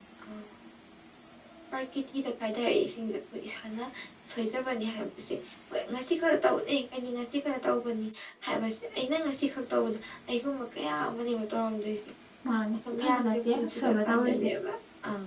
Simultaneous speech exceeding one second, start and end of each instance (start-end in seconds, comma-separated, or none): 12.9-14.5